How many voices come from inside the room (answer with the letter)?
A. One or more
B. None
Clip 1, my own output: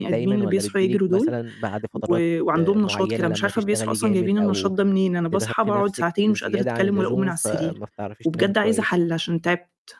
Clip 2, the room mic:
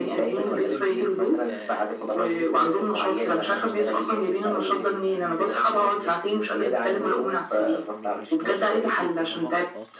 A